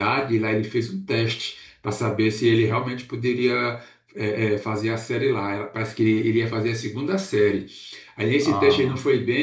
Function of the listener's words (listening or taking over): listening